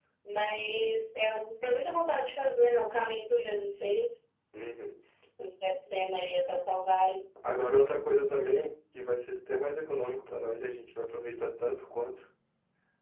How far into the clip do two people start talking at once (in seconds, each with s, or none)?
none